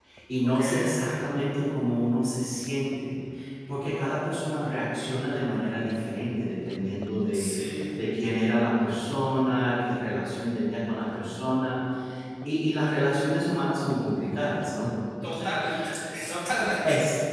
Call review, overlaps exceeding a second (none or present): none